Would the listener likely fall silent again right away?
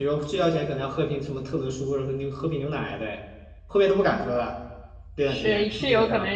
No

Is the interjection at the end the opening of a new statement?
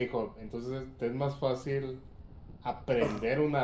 No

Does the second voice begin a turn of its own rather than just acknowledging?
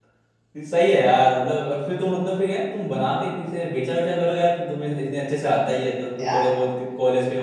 No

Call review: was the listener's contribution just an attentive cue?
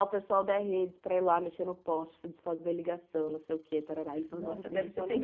No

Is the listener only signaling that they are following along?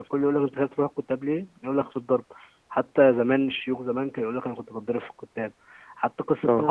Yes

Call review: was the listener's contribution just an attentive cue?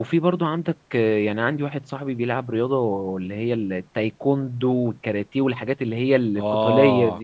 No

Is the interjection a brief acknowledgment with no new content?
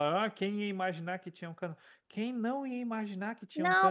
No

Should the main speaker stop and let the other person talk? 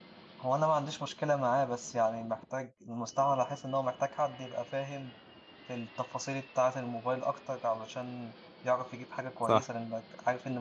No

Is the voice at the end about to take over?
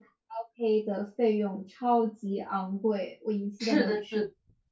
Yes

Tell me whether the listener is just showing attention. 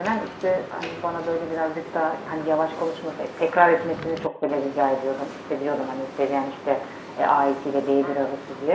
Yes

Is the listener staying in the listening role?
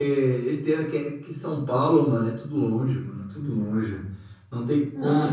Yes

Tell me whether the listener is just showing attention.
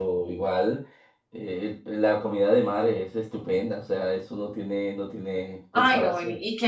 No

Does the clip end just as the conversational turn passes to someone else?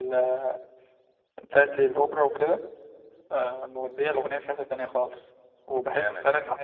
No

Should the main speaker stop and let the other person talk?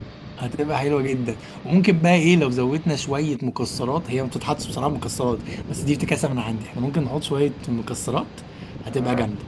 Yes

